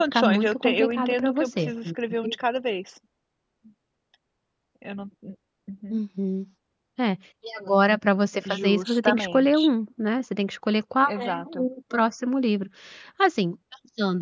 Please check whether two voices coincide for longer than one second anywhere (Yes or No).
Yes